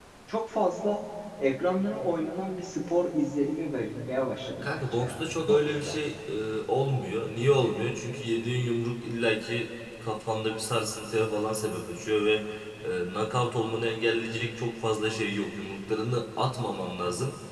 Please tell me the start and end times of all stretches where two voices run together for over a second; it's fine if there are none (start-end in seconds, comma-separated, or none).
4.6-6.0